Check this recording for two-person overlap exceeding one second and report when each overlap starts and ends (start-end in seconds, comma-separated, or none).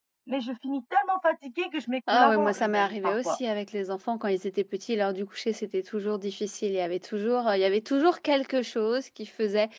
2.1-3.4